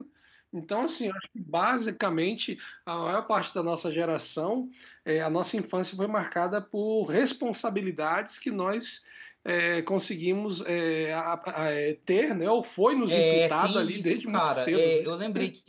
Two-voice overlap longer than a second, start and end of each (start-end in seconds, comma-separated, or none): 13.1-15.1